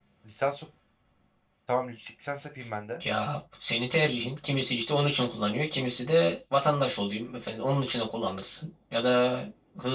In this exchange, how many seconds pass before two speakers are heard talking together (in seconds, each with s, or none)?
none